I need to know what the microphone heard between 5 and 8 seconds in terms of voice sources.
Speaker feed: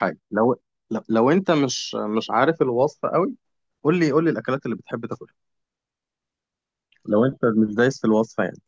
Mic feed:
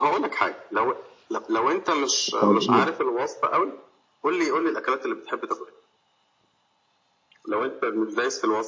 echo only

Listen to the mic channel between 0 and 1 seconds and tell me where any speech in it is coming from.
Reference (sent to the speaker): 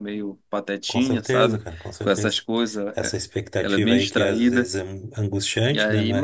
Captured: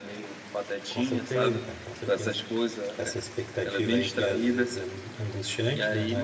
echo only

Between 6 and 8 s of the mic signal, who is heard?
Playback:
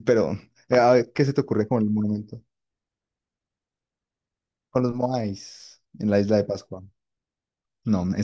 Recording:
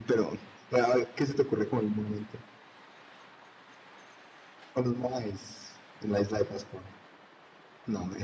echo only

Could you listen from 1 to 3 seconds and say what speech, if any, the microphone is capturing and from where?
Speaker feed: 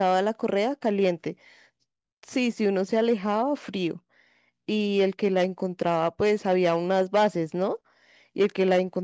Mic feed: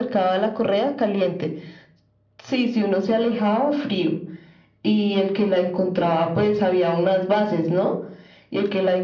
echo only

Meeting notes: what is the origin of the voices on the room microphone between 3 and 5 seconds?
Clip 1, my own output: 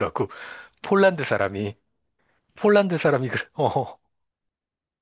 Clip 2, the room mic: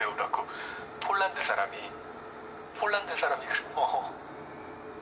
echo only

